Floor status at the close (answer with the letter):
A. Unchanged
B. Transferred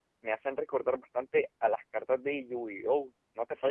B